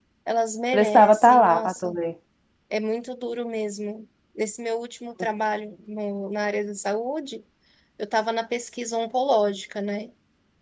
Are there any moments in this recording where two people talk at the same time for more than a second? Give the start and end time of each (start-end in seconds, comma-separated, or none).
0.7-2.0